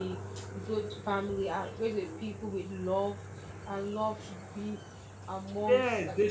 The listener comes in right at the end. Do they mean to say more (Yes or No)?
Yes